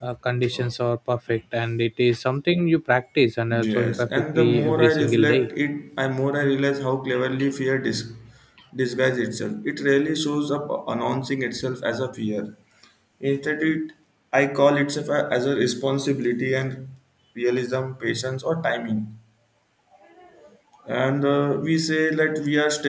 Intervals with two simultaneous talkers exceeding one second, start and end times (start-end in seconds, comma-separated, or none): 3.6-5.5